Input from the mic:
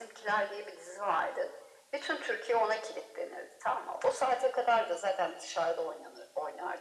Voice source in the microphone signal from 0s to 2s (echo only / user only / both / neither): echo only